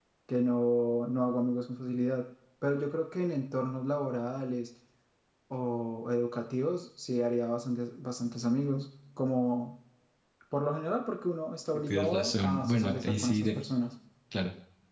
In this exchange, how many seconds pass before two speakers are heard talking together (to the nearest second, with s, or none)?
12 s